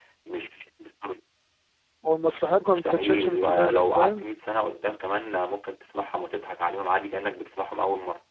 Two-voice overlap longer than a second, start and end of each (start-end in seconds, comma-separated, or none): 2.6-4.2